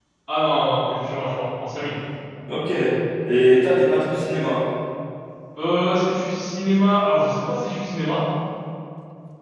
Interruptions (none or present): none